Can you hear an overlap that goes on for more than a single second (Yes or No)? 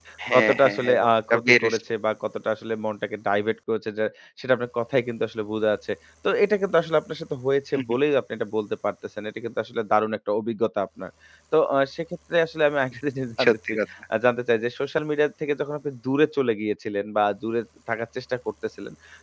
Yes